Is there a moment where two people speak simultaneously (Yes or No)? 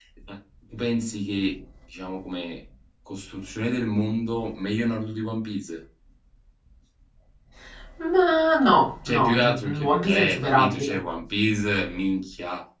Yes